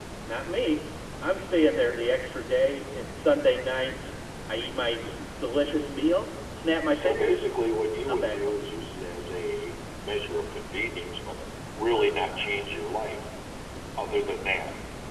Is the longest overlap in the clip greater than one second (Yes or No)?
No